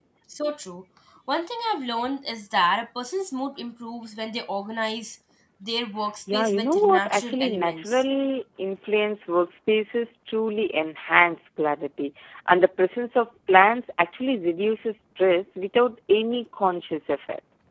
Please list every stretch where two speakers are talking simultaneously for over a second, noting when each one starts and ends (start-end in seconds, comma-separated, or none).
6.3-8.0